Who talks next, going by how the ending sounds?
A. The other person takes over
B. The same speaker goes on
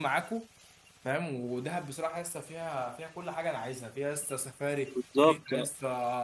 B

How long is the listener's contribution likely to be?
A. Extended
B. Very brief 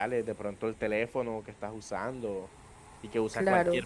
B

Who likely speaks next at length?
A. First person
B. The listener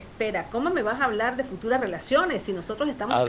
A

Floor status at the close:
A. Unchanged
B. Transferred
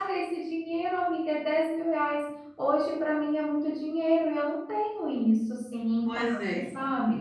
B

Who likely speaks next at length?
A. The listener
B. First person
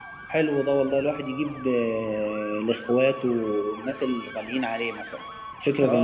A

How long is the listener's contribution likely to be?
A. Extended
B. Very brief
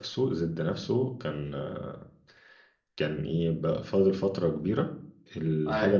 B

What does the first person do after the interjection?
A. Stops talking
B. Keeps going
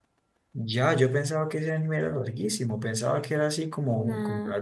B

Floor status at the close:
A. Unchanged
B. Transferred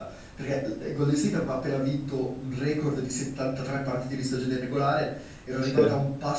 A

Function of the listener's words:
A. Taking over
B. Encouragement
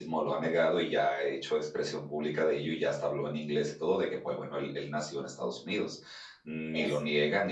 B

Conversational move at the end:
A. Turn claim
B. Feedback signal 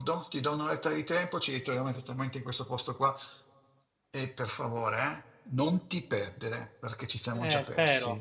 A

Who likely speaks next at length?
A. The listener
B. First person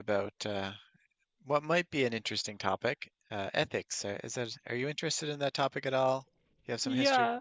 A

